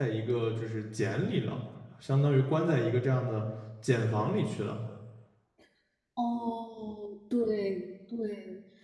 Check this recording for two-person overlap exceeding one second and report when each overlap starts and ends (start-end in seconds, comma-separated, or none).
none